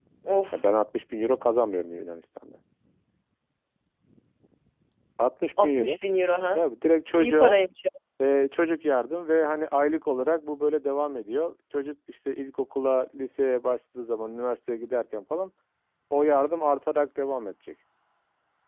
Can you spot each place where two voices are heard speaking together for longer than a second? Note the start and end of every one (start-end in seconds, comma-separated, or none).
none